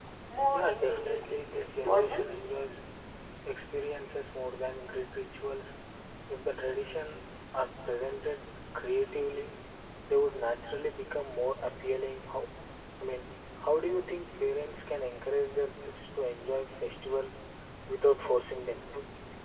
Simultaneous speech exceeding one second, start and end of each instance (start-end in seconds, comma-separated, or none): 0.5-2.2